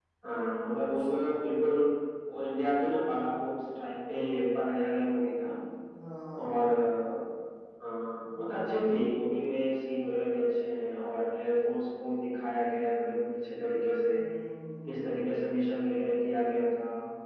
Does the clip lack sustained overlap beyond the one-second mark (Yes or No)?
Yes